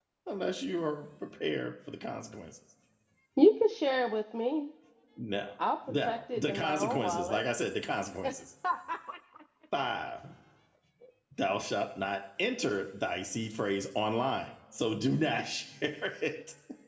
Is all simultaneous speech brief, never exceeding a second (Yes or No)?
No